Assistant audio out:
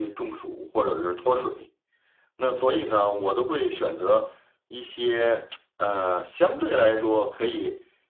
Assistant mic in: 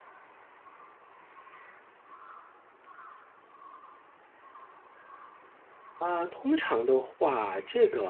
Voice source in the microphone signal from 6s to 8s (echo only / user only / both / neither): user only